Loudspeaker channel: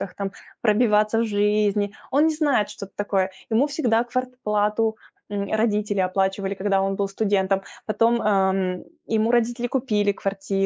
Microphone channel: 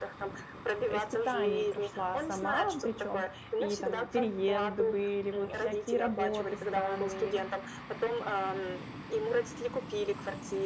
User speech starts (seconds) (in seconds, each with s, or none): 0.9 s